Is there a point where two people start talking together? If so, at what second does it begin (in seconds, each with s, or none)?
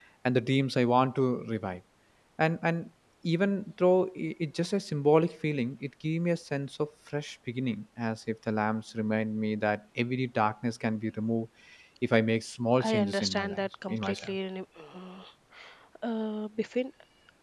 12.8 s